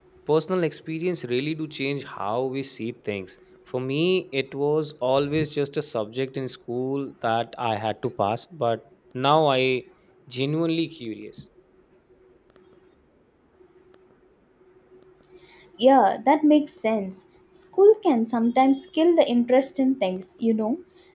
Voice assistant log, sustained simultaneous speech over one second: none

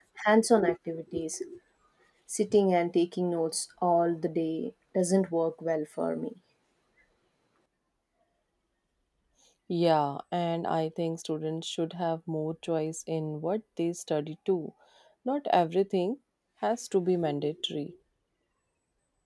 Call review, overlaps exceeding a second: none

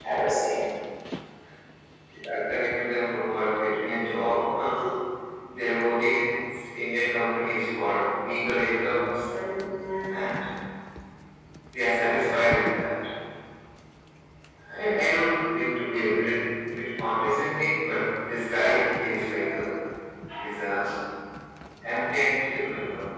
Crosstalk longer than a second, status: none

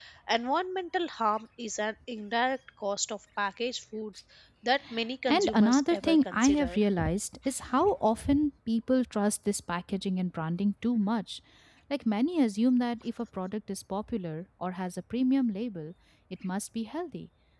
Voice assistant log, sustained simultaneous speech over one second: present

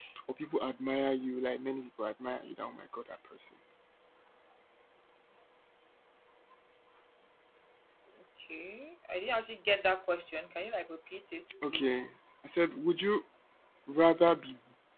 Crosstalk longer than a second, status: none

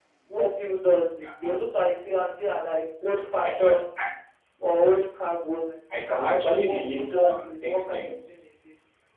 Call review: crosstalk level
present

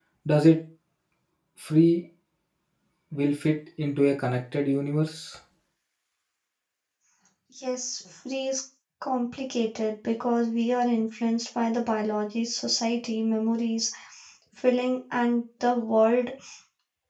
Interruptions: none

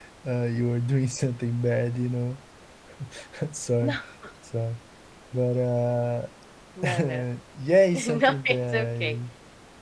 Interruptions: present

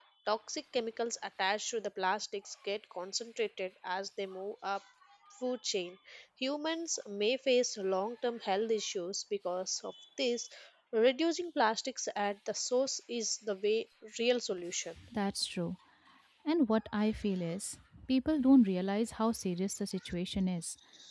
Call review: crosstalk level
none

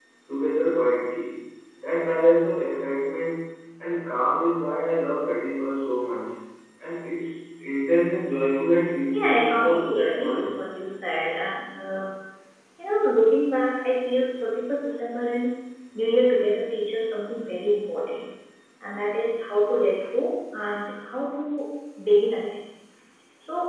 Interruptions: present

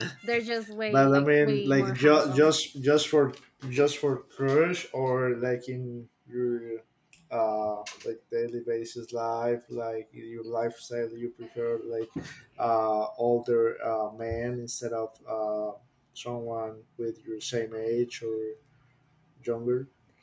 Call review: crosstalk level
present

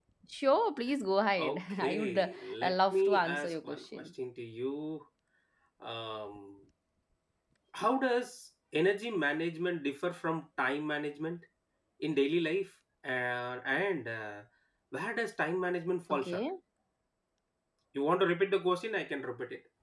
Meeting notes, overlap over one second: present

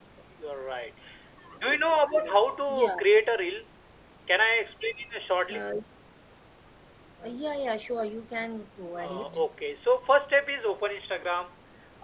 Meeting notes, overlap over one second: none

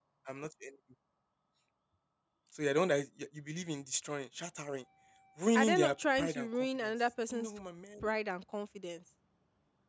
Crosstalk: present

